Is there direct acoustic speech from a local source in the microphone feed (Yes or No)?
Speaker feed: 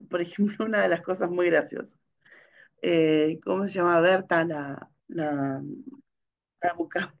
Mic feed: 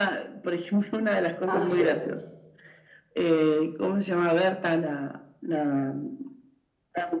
Yes